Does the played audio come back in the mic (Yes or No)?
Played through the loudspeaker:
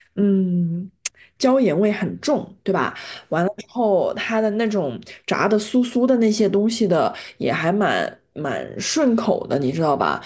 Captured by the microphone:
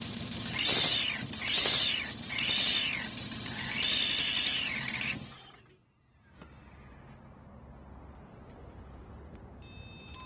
No